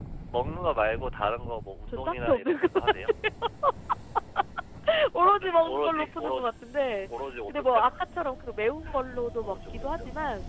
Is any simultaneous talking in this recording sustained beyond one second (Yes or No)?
Yes